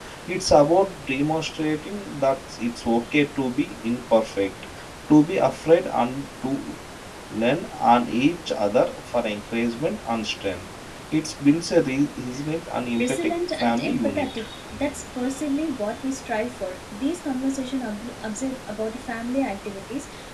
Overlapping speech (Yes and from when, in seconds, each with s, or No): Yes, from 13.0 s